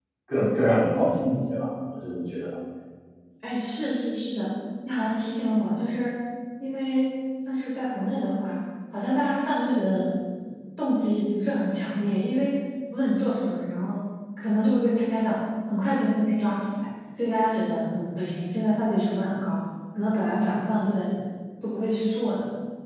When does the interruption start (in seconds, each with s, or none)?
none